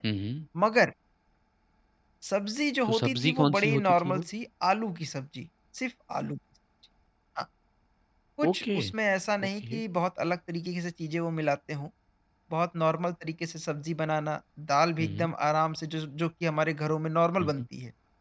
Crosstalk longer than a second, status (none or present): present